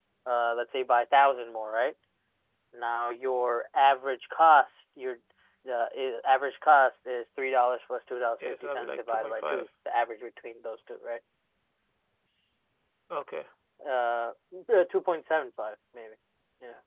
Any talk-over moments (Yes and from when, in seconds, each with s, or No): Yes, from 8.4 s